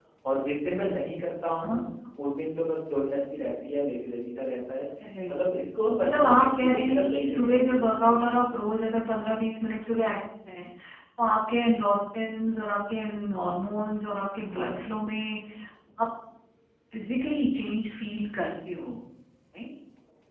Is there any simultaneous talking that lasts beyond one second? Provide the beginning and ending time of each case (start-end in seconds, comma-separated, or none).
6.0-7.8